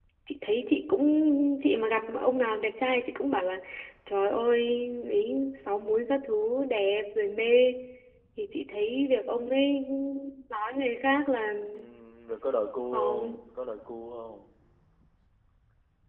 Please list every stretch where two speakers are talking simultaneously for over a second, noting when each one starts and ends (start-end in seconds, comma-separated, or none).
none